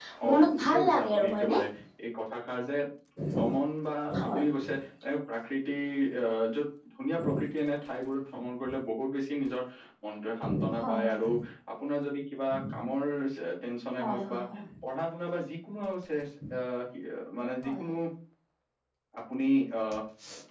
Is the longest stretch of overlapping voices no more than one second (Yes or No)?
No